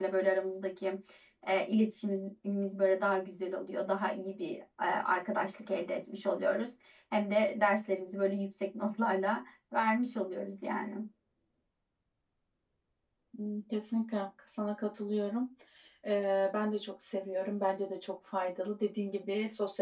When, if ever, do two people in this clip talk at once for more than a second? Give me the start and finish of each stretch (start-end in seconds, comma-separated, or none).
none